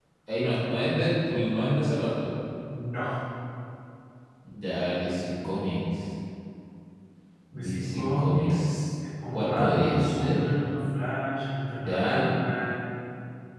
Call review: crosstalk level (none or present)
present